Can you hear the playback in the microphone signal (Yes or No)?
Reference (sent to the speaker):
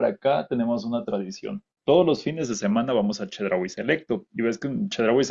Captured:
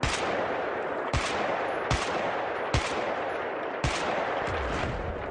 No